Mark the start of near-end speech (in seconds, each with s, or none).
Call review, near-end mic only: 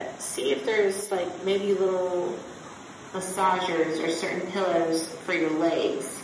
none